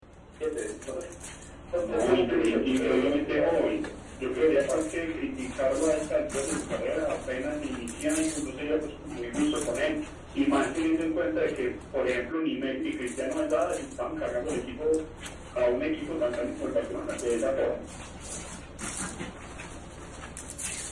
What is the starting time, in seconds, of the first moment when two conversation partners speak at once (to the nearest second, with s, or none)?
2 s